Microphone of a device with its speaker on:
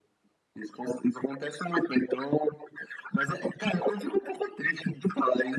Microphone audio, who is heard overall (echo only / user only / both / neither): echo only